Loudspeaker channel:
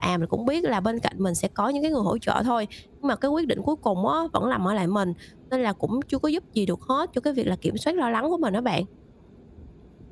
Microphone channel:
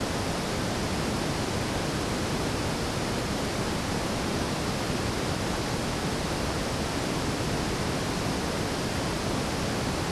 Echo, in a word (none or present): none